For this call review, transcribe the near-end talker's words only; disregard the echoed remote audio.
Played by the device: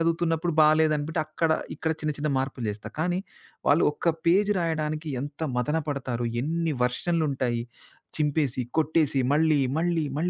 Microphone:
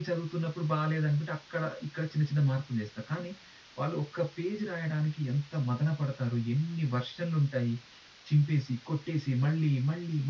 none

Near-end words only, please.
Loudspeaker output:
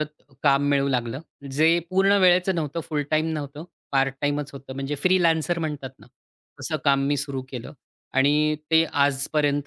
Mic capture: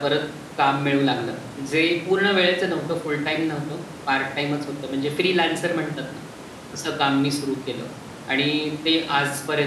none

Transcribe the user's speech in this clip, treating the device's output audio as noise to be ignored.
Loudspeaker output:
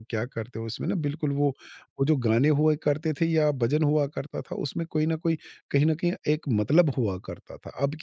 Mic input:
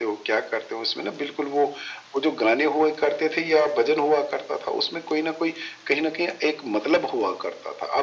none

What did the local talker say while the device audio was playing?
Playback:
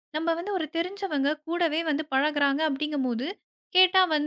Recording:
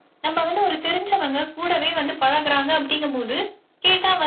none

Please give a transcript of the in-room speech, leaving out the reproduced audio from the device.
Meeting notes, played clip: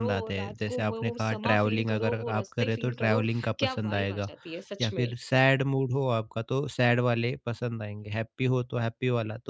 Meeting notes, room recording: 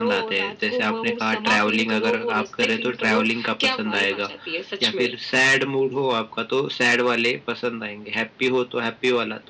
none

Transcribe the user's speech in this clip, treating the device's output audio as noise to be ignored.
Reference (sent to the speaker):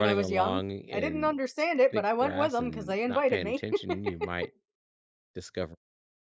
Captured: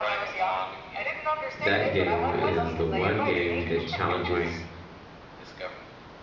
That game is the one game that challenges,

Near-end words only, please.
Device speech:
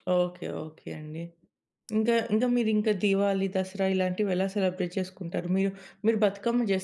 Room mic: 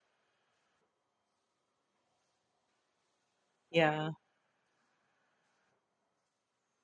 యాహ్!

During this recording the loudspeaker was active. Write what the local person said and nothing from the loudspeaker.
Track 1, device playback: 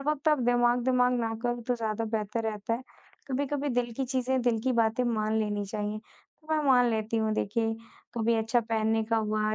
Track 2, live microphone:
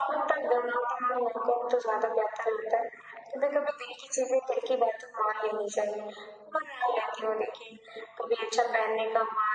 none

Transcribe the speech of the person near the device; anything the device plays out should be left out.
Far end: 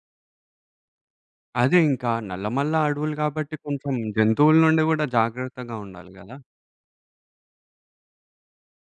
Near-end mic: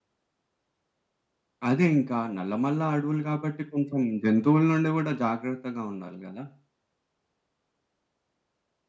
none

